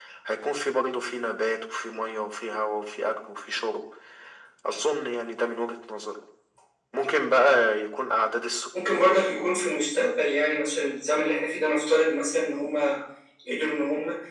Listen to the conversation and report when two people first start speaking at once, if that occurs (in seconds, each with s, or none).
none